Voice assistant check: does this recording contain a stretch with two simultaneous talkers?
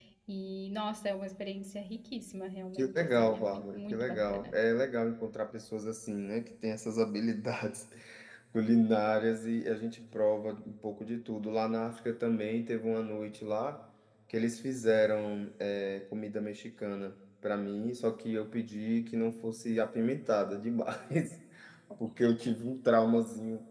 Yes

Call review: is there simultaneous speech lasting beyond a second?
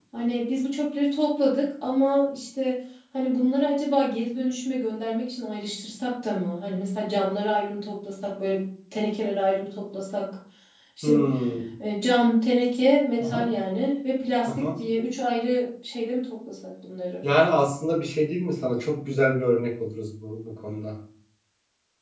No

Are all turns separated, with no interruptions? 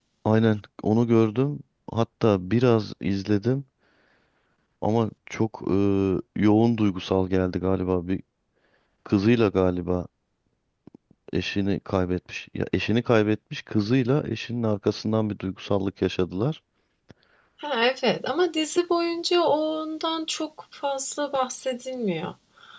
Yes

